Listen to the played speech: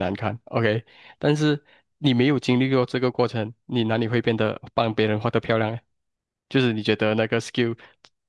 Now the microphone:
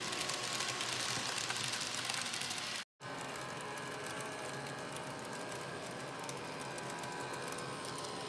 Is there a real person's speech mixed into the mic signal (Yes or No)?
No